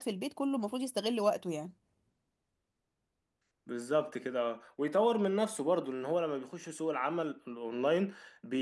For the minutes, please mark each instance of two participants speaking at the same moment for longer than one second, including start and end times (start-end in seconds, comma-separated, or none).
none